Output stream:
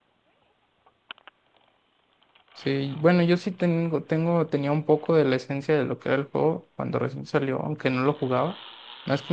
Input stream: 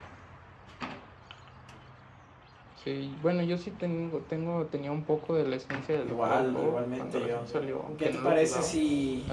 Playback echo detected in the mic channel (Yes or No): Yes